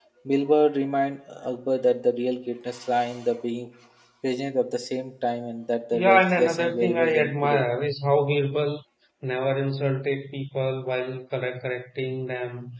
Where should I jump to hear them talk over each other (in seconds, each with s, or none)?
5.9 s